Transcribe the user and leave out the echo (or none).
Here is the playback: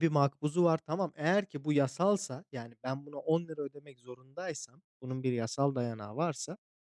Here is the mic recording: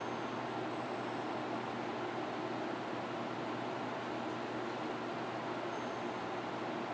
none